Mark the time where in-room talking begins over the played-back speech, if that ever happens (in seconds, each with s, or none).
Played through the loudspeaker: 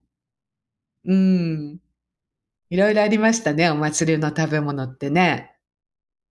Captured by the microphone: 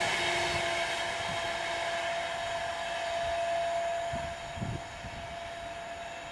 none